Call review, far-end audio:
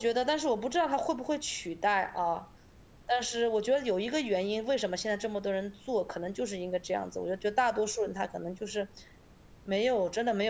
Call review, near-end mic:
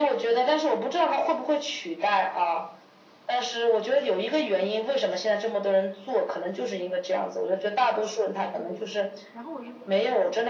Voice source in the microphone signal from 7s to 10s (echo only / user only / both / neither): both